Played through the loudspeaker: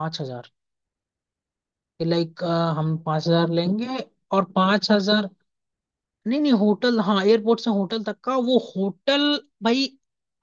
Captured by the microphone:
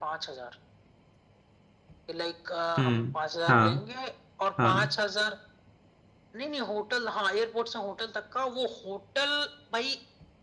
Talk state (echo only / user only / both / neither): both